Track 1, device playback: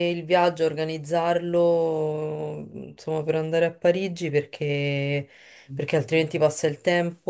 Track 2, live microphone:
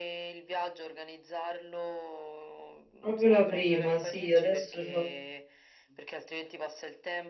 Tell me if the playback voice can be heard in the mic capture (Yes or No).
Yes